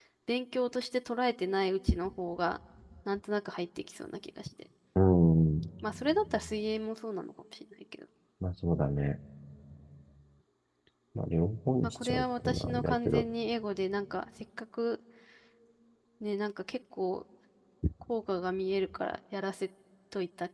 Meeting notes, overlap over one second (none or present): present